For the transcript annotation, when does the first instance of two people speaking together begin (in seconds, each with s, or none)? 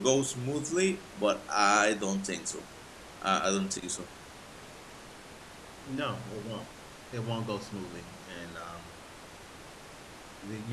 none